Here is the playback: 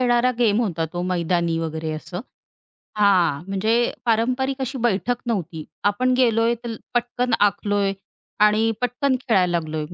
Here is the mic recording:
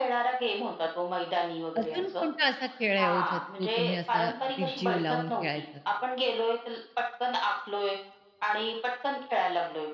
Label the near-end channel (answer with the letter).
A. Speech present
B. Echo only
A